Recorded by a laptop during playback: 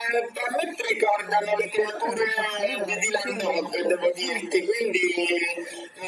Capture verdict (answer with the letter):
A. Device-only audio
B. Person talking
B